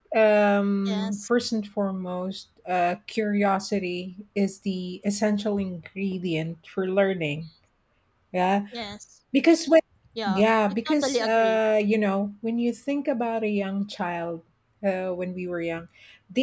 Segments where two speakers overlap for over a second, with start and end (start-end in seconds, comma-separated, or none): 10.3-11.6